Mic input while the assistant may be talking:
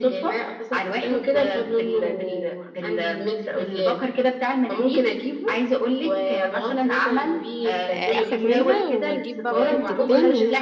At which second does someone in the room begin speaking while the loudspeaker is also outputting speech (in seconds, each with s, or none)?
7.9 s